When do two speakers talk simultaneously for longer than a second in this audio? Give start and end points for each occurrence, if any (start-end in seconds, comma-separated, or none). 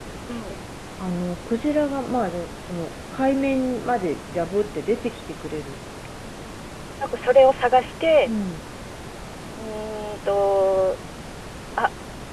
none